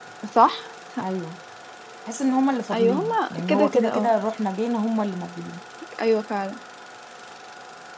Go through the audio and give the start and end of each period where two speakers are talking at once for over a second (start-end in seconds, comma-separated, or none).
2.7-4.1